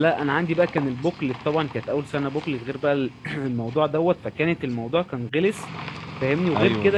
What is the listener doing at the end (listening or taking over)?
listening